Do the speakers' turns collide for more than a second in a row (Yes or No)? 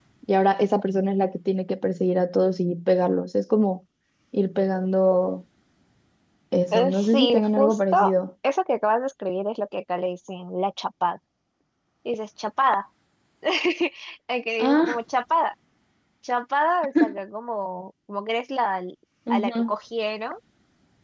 Yes